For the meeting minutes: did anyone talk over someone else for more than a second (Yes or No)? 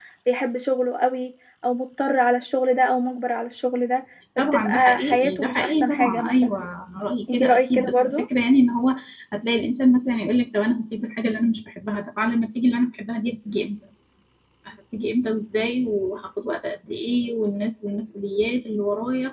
Yes